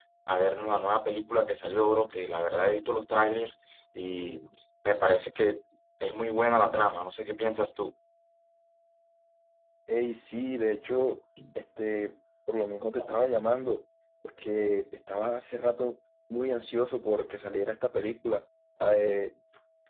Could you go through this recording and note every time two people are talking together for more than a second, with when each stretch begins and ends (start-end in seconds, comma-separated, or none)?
none